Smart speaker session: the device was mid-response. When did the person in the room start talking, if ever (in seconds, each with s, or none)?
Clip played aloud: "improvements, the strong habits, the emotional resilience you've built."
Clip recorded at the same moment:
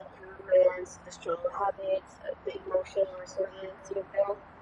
none